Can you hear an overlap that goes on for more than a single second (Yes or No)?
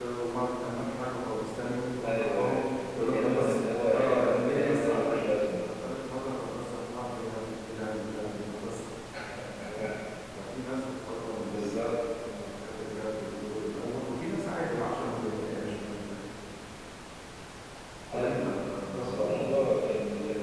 Yes